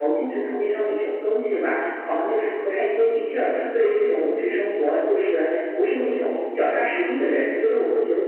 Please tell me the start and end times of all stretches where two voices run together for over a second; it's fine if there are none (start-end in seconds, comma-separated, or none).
none